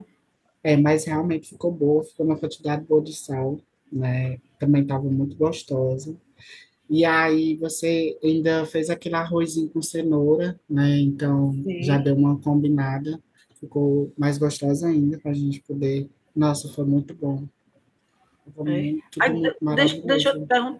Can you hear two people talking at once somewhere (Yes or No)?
Yes